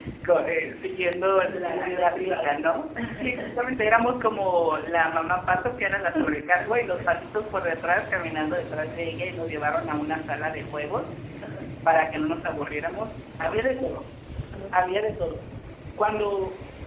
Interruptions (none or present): present